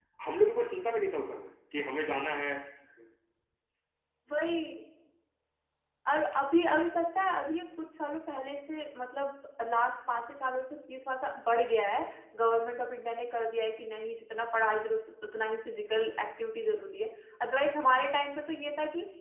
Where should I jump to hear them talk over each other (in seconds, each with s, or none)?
none